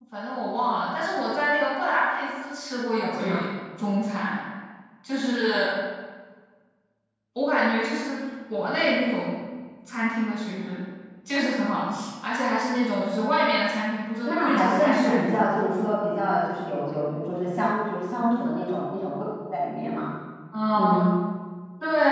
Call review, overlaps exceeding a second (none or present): present